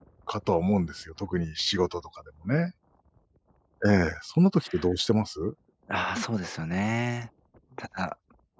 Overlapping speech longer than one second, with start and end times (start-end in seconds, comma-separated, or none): none